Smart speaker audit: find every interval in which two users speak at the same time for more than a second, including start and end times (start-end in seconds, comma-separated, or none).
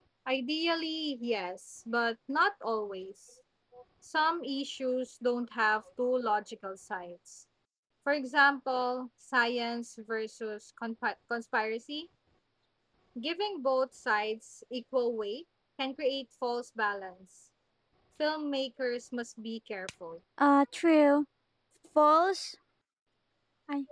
none